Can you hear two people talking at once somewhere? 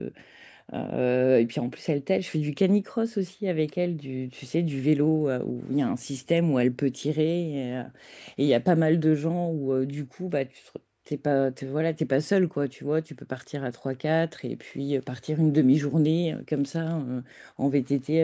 No

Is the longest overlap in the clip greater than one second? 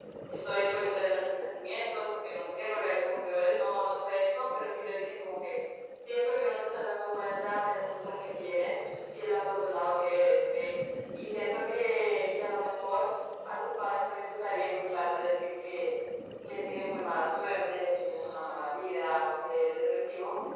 No

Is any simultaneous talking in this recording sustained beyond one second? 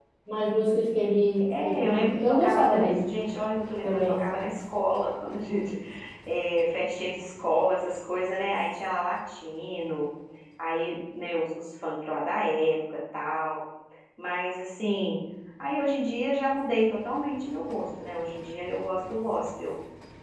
Yes, from 1.4 s

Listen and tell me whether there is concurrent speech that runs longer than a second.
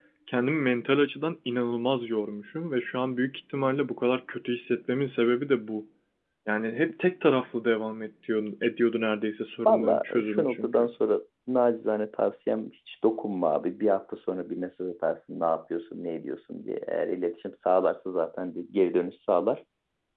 Yes, from 9.6 s

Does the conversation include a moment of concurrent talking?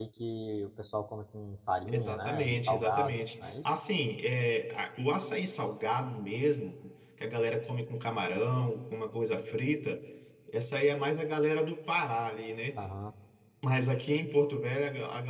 Yes, from 1.9 s

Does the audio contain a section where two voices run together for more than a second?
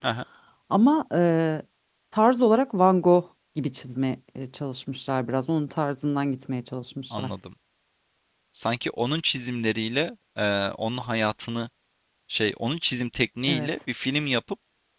No

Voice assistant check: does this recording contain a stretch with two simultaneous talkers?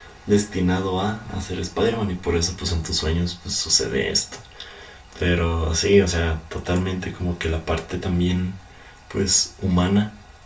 No

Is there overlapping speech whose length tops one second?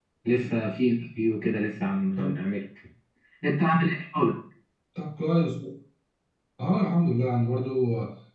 No

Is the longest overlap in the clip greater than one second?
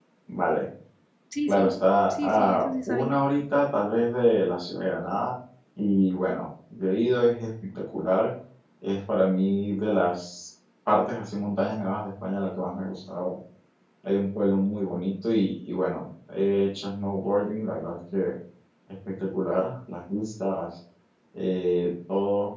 Yes, from 1.5 s

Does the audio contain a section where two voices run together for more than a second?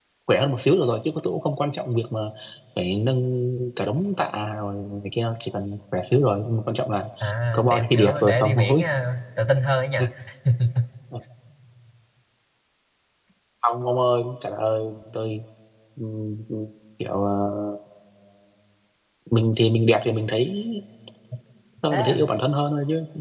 Yes, from 7.5 s

